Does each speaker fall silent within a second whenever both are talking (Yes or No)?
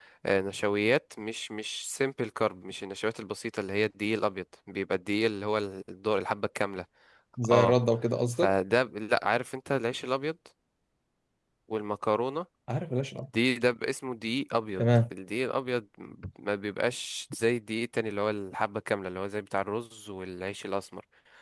Yes